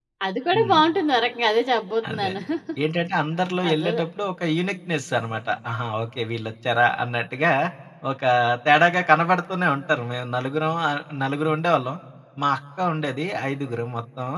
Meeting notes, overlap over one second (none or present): none